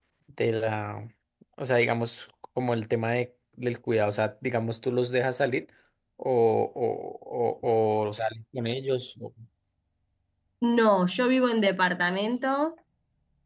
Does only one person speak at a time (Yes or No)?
Yes